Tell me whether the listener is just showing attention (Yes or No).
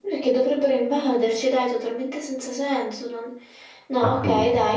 Yes